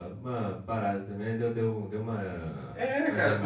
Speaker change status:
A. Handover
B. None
A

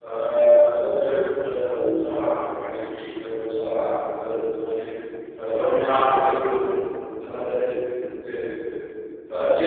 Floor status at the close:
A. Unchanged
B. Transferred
B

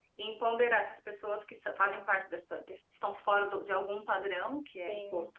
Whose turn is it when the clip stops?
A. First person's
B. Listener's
A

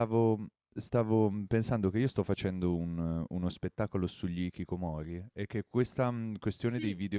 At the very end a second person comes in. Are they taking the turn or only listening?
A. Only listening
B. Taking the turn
A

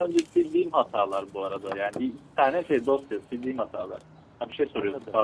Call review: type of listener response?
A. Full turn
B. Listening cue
A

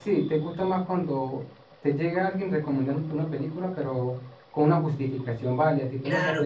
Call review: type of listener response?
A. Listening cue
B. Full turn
B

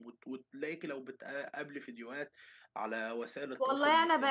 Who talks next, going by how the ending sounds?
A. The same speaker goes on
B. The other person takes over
B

